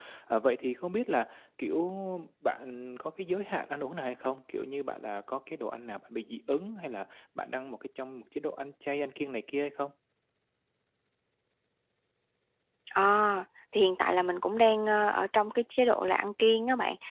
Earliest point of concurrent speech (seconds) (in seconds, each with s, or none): none